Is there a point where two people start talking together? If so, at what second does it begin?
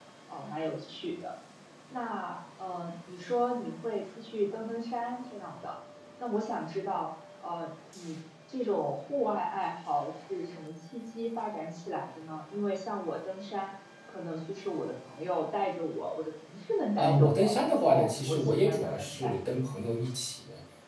17 s

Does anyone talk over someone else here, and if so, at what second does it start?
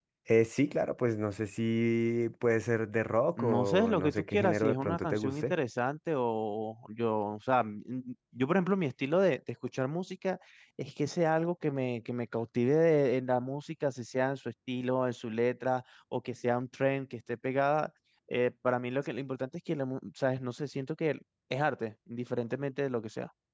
3 s

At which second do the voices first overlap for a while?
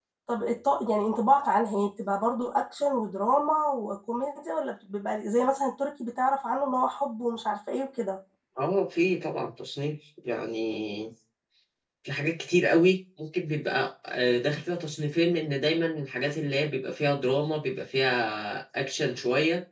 none

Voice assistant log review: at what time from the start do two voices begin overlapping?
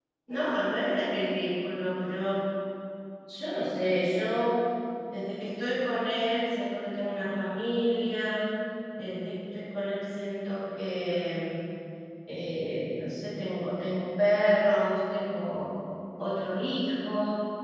none

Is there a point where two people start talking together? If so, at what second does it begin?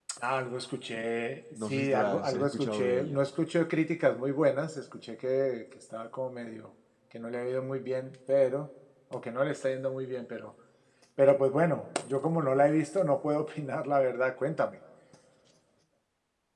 2 s

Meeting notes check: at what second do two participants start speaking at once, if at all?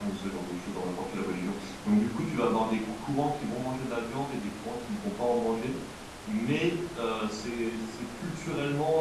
none

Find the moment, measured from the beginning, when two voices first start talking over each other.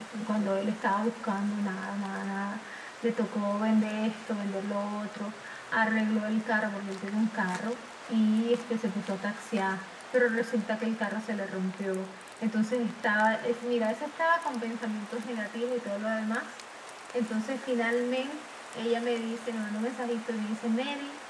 none

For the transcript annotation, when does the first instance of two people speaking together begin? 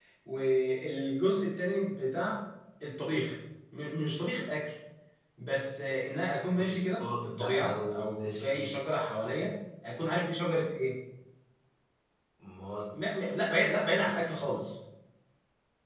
7 s

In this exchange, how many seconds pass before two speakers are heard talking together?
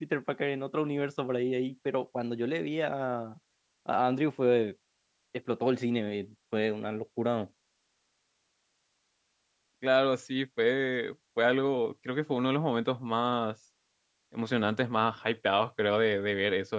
none

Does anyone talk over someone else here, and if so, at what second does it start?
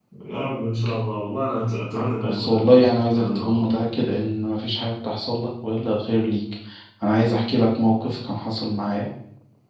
2 s

